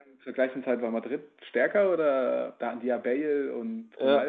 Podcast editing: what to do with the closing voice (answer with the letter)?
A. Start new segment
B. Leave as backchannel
A